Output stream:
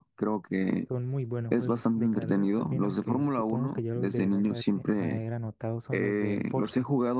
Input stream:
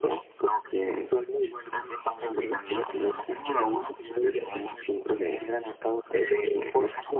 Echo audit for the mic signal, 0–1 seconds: echo only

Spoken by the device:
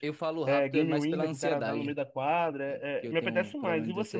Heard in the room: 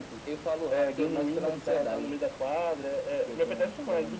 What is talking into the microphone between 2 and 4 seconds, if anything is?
echo only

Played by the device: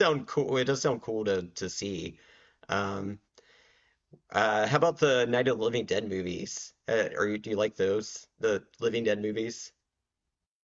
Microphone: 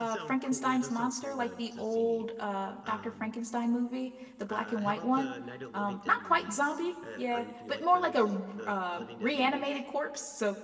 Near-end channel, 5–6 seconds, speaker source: both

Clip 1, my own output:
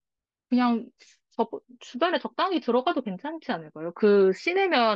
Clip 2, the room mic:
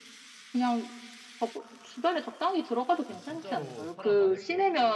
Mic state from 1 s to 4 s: both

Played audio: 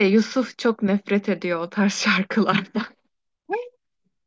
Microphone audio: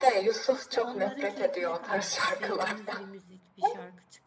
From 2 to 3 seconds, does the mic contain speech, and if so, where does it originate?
both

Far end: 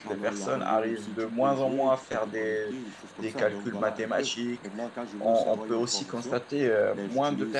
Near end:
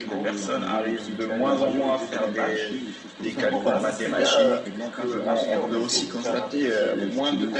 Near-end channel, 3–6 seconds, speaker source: both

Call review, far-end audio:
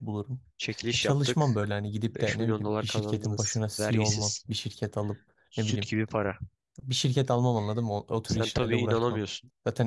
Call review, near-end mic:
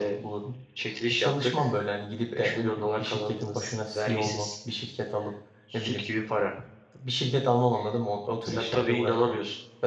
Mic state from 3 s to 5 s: echo only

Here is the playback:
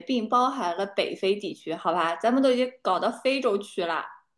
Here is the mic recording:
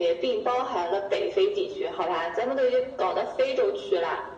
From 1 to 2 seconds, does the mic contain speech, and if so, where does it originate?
echo only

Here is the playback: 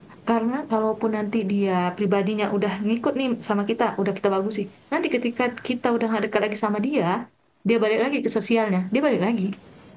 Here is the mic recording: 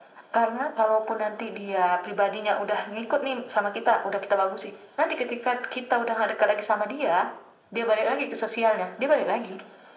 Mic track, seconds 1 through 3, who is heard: echo only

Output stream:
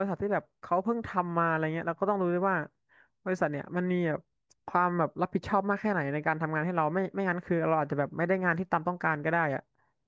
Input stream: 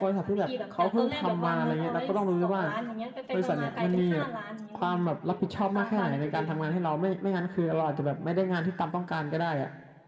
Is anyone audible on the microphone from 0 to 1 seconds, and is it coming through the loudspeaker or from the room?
both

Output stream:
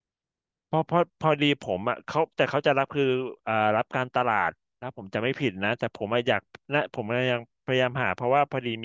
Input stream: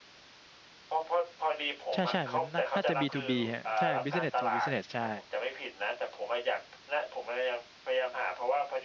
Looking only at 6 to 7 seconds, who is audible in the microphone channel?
echo only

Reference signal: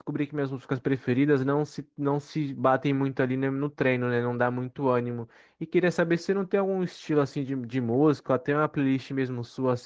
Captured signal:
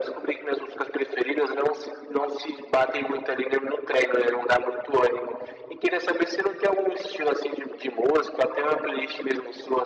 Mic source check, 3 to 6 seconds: echo only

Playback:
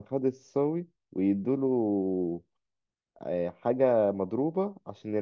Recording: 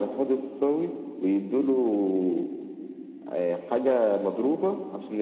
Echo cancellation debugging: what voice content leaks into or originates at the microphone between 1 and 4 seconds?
echo only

